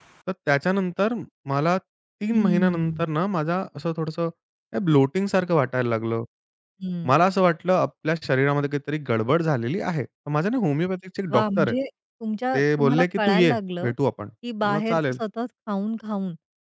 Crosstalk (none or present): present